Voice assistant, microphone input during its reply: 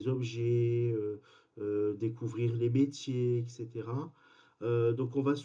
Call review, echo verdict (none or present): none